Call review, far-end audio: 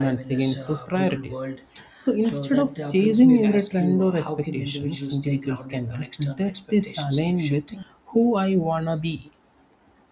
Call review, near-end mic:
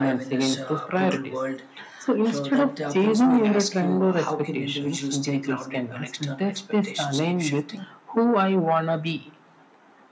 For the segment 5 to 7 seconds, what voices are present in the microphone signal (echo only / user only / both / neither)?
echo only